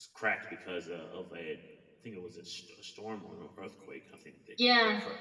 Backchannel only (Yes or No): No